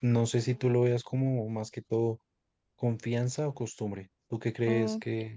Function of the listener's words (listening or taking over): taking over